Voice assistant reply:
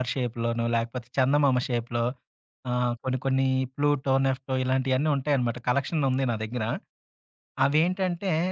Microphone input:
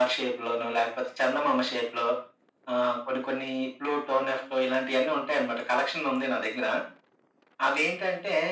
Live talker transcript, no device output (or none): none